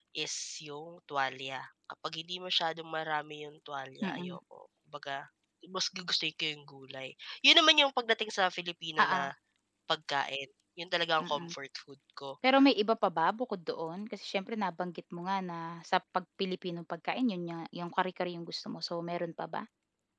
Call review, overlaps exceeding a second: none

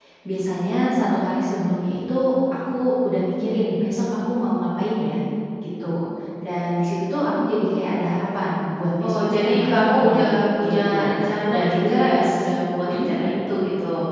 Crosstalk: present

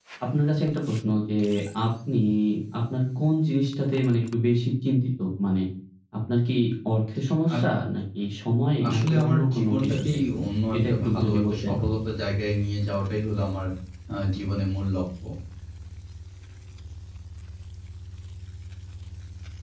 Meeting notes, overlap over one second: present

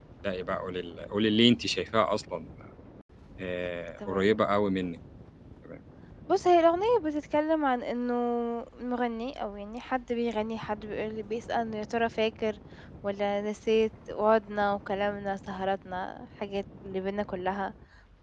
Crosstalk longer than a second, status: none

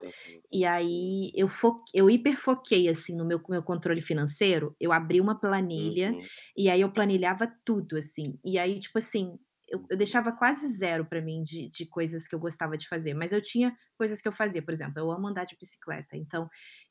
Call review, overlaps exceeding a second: none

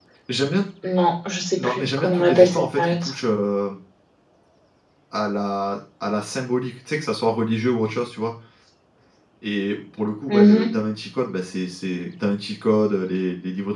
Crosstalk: present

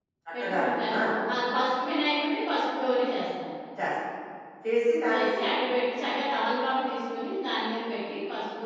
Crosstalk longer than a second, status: none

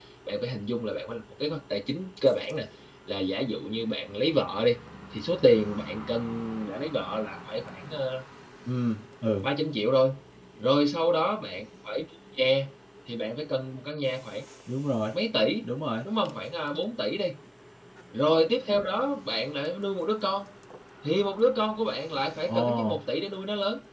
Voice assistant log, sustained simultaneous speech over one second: none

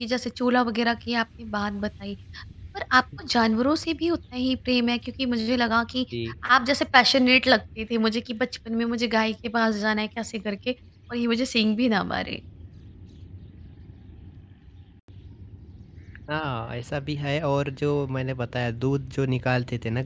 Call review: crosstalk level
none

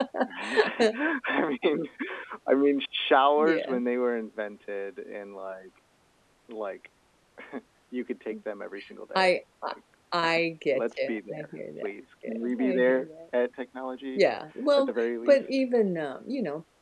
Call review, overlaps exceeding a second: present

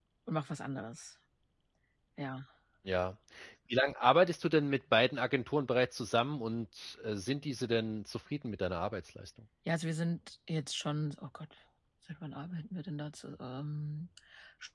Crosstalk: none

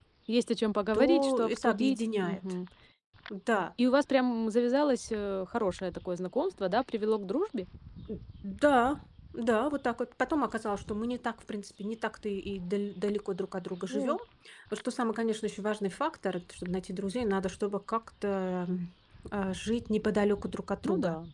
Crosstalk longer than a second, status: present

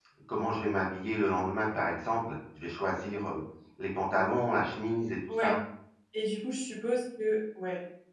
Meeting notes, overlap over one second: none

